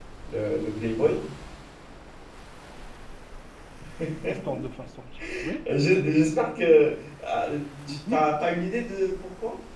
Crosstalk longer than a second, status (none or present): none